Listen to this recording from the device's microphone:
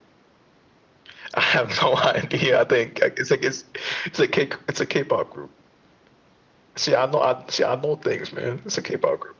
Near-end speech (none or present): none